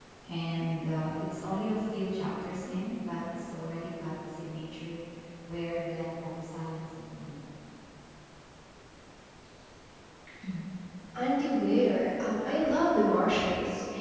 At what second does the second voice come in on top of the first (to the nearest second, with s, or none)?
none